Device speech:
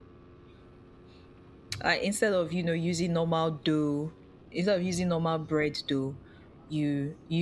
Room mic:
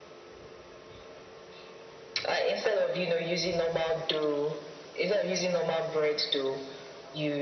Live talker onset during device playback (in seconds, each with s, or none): none